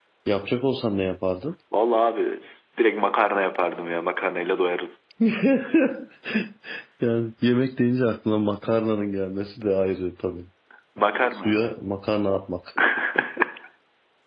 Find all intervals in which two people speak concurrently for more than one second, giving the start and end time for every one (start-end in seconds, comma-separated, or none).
none